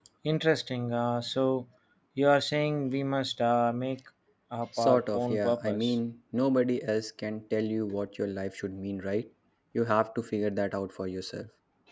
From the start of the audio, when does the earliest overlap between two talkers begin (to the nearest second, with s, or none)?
5 s